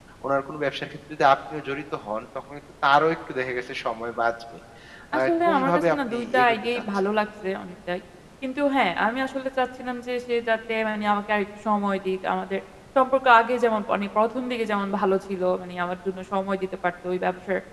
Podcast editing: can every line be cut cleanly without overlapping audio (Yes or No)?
No